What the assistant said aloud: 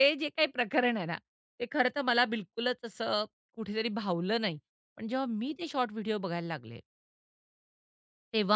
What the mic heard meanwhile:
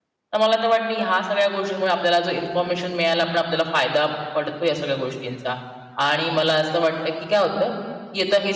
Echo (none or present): none